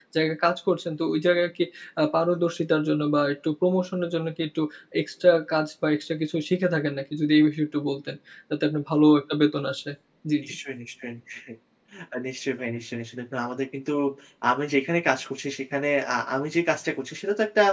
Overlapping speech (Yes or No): No